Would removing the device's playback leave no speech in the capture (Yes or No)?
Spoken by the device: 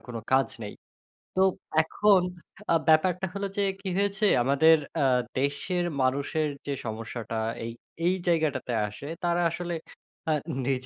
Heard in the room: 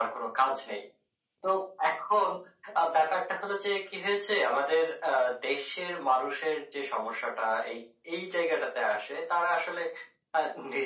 Yes